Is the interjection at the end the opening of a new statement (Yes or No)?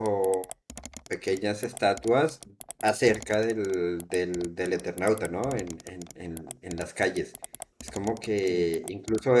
No